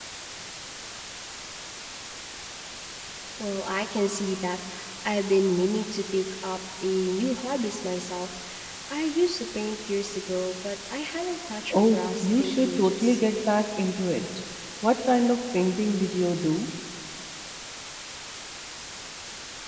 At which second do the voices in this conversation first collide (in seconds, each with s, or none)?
11.7 s